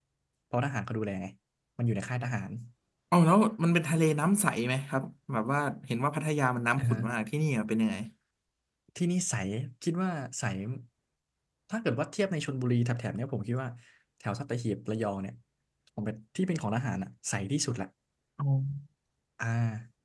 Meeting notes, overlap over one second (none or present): none